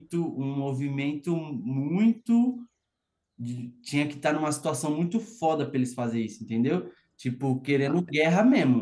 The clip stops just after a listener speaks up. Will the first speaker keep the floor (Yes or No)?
Yes